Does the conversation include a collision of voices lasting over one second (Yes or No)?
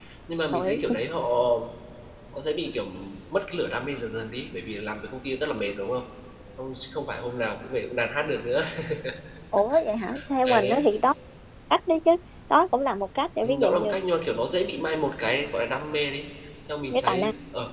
No